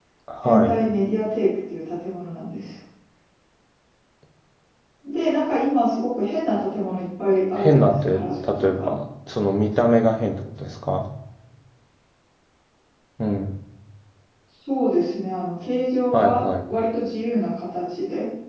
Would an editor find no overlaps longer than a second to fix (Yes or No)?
No